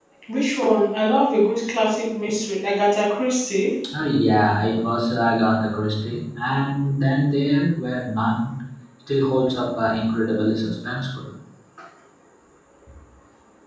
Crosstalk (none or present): none